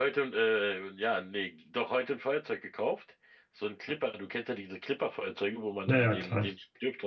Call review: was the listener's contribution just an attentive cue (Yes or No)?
Yes